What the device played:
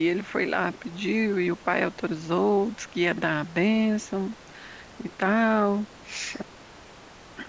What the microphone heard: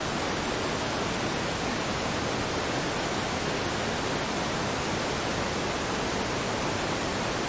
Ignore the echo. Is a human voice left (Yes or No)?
No